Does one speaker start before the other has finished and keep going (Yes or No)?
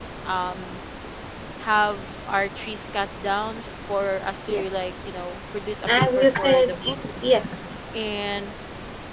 Yes